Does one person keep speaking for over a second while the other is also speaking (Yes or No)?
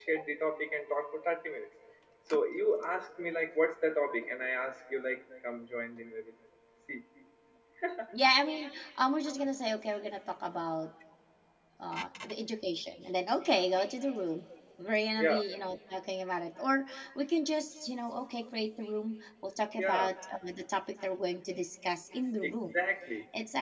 No